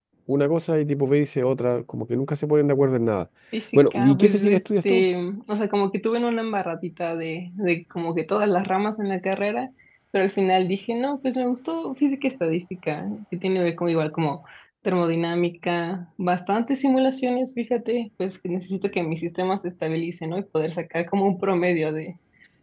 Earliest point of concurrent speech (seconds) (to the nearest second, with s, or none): 4 s